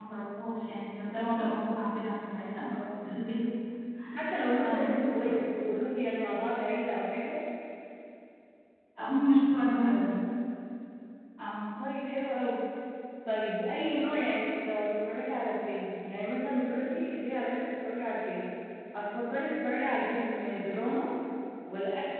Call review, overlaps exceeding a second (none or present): none